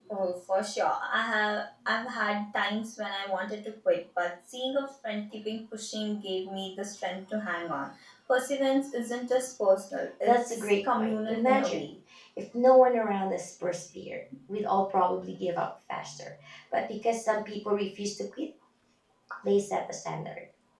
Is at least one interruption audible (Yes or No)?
Yes